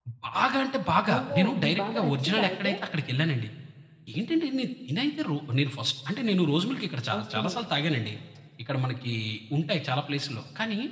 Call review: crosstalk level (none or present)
present